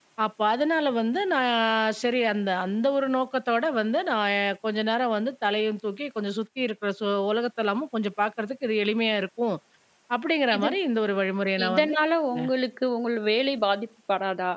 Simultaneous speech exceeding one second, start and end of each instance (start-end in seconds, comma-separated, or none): none